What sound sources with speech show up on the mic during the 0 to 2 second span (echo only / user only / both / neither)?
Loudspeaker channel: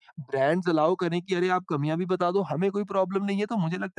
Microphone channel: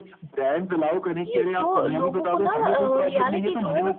both